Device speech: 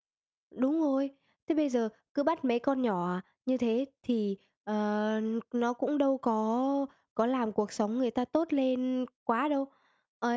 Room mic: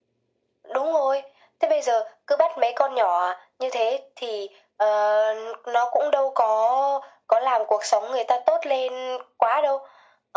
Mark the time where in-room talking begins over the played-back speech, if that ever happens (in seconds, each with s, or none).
none